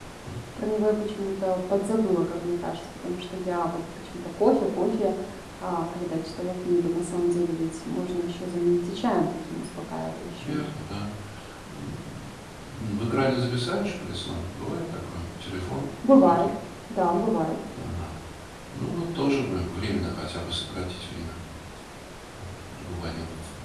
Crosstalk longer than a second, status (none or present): none